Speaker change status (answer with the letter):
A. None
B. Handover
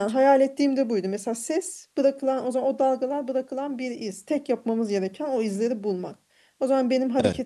A